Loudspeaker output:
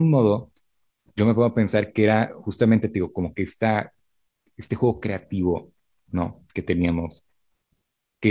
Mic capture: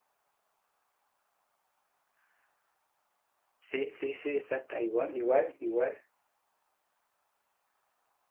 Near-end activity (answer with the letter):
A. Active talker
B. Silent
A